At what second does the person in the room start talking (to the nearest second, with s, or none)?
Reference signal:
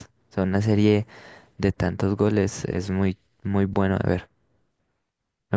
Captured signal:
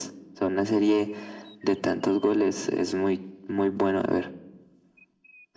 none